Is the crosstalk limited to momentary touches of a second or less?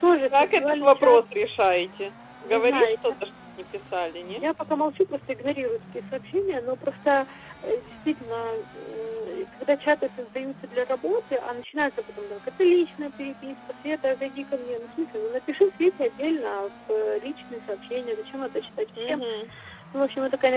No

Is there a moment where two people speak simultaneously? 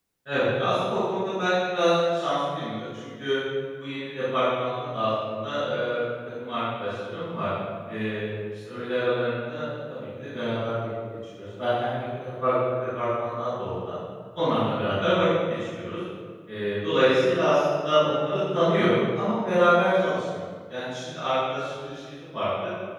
No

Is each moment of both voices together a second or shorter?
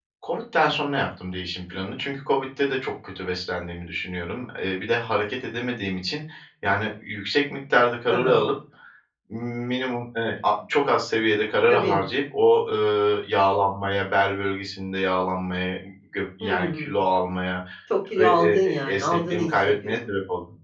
No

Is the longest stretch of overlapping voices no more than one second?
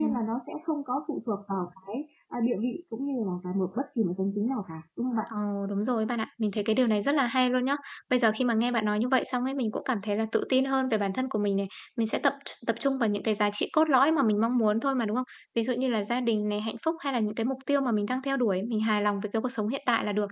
Yes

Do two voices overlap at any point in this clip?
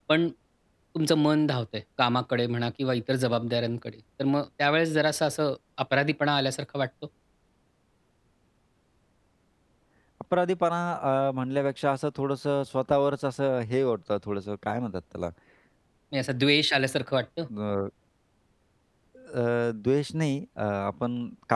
No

